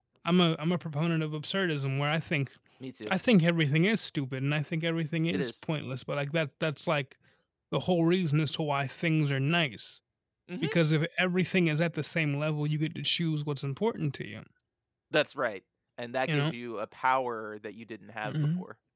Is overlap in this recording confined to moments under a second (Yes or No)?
Yes